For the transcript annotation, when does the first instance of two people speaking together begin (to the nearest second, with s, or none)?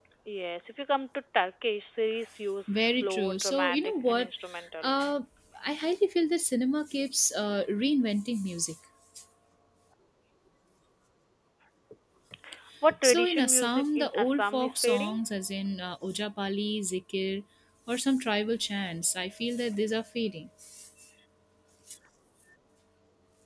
3 s